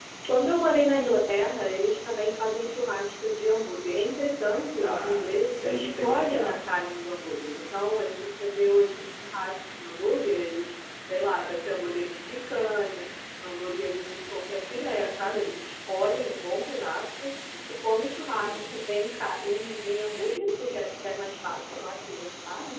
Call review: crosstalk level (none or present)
present